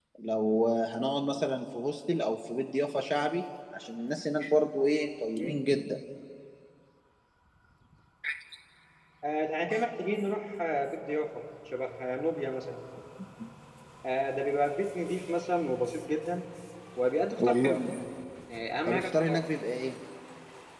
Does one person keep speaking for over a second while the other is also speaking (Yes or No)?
No